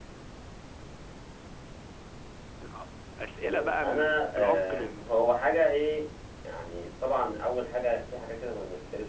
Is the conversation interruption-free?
No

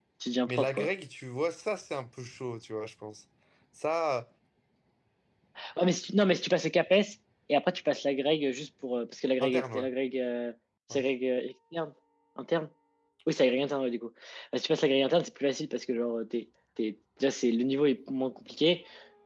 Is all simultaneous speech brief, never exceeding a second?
Yes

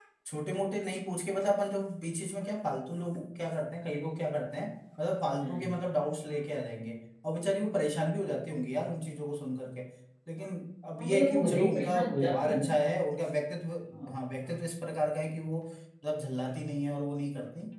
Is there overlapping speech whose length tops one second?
Yes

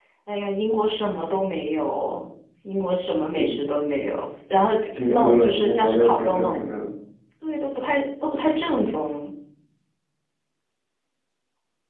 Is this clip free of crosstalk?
No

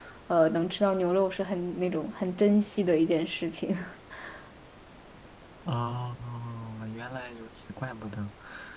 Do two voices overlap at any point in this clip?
No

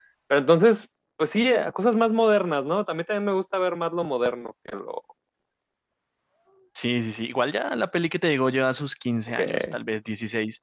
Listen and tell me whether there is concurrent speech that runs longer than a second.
No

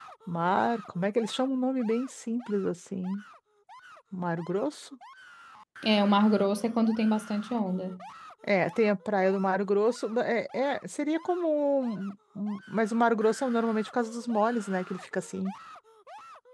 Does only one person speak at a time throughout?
Yes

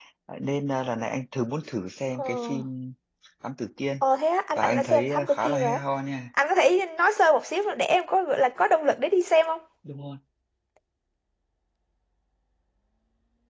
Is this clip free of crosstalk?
No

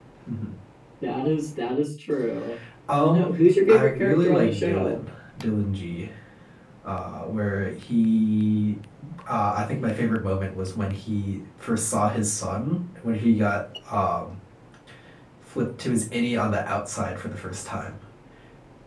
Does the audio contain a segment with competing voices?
Yes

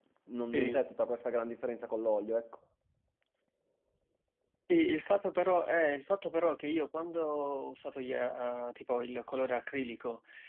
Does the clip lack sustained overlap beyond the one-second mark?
Yes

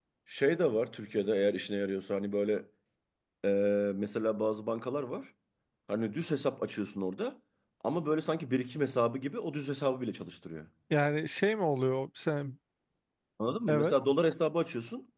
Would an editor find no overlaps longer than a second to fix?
Yes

